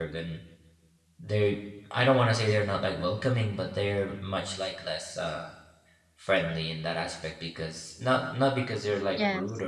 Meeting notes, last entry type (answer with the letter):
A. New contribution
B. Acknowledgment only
B